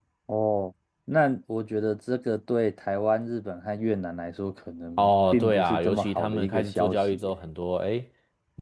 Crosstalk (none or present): present